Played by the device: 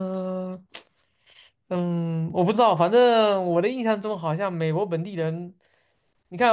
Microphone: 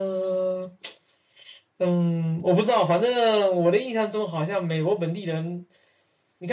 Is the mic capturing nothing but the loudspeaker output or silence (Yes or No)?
Yes